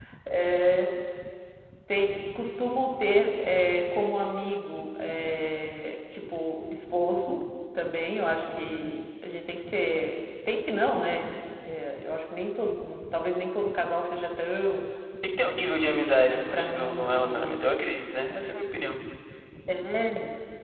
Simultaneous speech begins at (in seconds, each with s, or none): 16.3 s